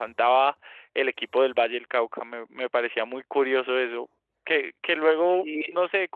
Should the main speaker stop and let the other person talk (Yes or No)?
No